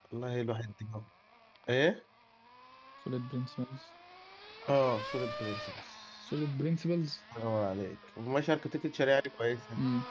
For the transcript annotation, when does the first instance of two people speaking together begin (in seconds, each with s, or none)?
none